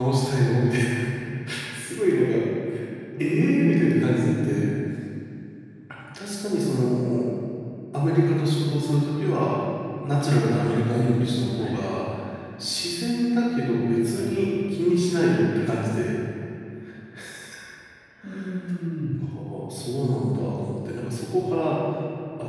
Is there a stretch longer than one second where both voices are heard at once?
Yes, from 3.2 s

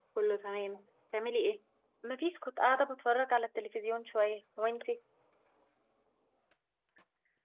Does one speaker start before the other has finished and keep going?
No

